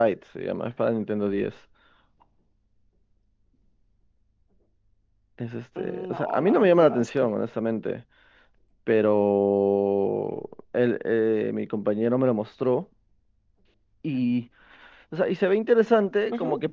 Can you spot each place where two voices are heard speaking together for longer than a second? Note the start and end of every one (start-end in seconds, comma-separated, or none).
5.8-7.3